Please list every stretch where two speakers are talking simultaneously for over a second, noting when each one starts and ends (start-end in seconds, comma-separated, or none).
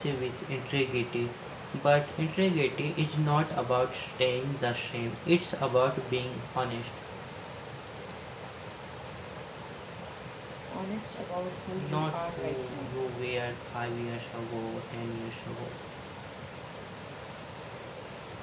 11.8-13.0